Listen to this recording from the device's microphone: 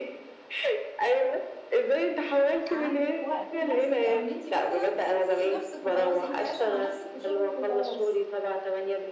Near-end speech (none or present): present